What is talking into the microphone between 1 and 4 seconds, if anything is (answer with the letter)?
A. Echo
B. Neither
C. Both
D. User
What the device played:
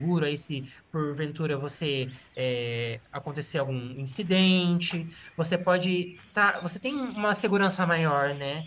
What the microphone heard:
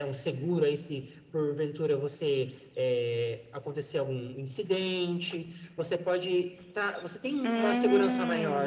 A